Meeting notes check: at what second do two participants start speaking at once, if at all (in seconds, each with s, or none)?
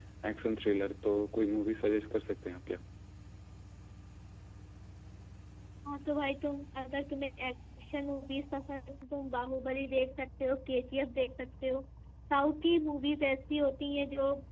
none